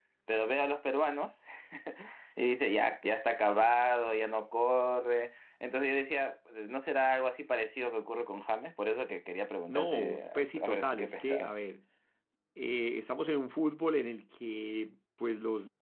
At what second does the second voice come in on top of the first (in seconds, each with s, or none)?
9.7 s